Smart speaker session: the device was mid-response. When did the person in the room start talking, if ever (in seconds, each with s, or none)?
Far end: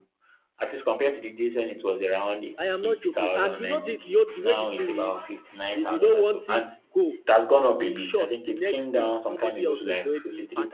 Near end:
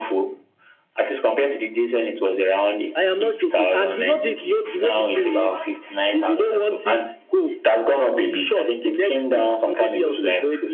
none